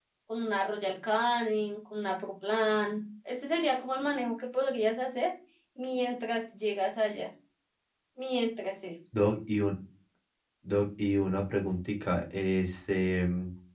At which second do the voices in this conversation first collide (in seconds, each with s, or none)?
none